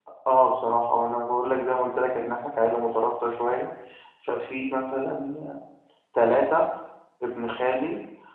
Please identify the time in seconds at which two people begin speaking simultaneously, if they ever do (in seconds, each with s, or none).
none